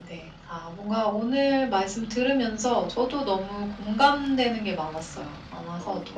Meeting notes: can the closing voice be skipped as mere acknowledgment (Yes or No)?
Yes